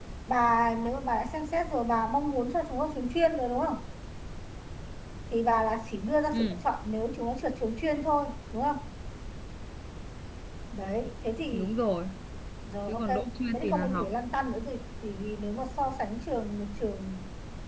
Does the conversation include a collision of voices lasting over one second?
No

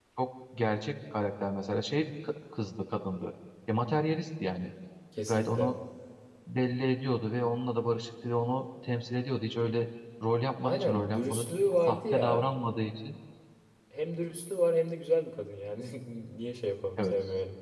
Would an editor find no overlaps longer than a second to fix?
No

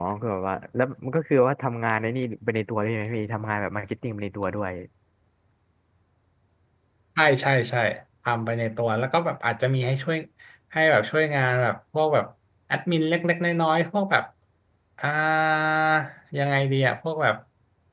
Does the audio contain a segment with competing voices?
No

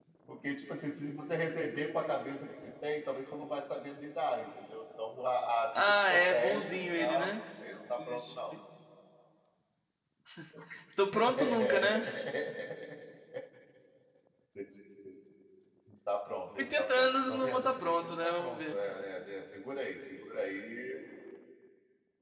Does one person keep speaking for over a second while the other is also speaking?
Yes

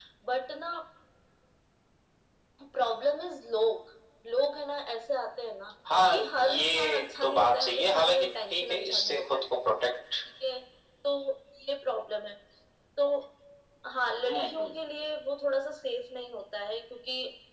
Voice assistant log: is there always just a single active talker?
No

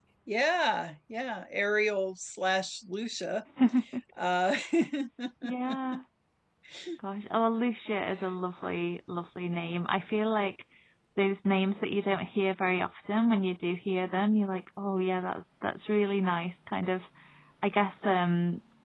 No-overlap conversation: Yes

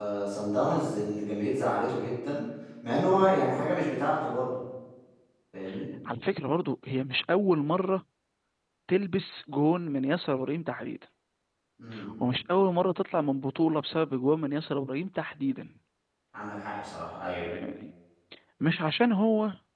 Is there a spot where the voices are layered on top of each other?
No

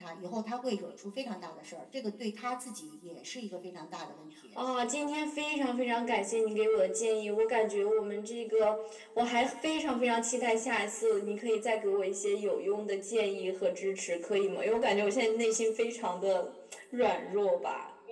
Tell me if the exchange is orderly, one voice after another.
Yes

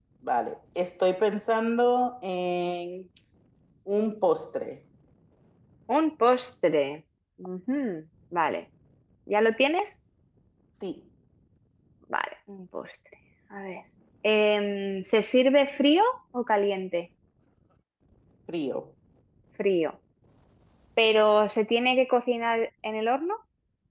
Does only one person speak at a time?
Yes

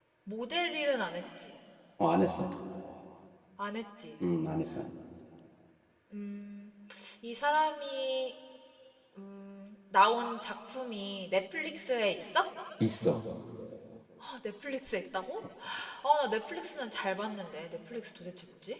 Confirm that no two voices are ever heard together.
Yes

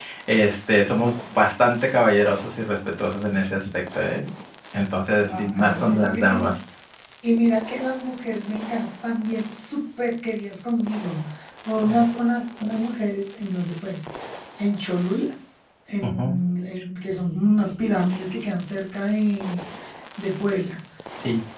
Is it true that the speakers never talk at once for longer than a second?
No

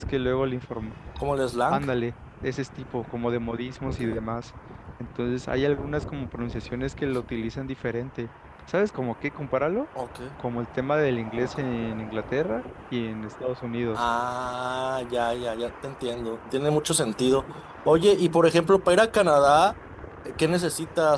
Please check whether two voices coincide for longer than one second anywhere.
No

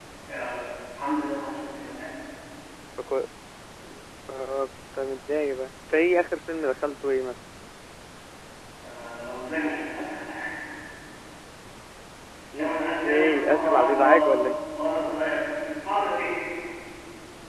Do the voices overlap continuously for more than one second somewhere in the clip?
Yes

